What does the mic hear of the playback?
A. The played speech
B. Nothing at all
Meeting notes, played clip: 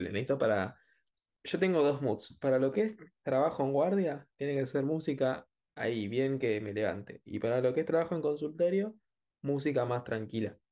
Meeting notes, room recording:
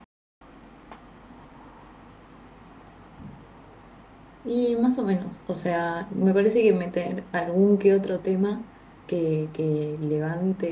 B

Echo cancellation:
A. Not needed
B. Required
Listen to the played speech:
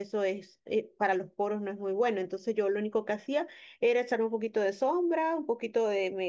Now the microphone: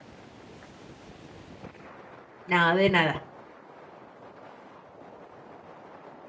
A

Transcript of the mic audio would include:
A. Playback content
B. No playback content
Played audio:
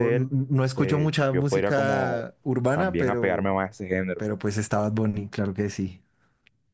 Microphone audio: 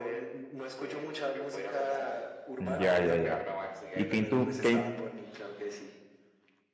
A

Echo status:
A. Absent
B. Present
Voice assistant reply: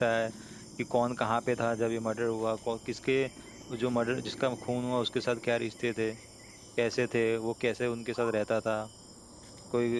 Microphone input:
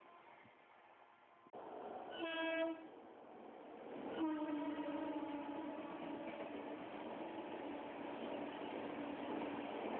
A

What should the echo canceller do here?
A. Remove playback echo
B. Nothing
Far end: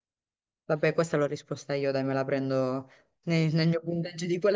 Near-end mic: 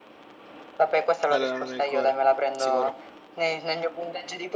A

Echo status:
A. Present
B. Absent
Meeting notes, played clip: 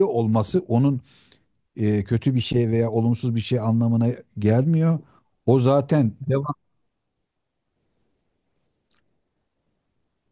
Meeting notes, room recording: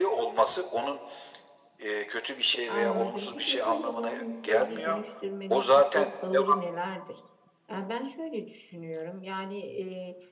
A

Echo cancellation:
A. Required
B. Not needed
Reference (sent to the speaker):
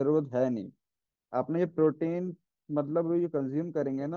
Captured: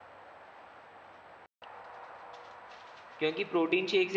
B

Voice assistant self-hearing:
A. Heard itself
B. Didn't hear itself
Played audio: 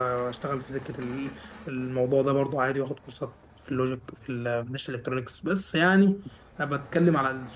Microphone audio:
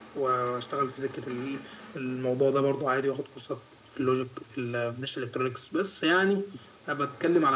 A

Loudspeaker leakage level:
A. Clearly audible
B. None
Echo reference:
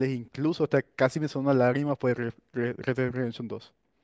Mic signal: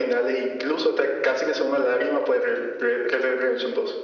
A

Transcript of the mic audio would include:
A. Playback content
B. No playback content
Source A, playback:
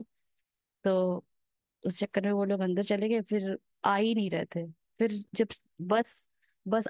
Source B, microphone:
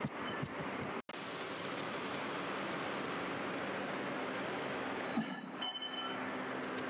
B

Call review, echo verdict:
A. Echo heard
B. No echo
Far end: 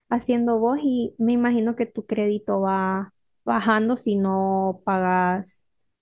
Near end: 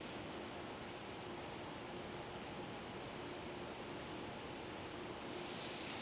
B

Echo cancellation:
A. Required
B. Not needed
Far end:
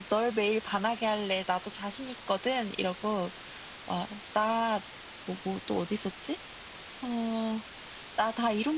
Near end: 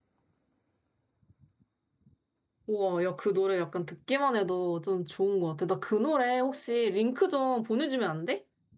B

